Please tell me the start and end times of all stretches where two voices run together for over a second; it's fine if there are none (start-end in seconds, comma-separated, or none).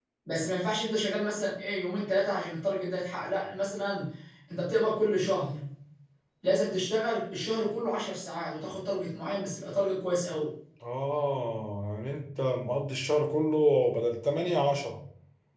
none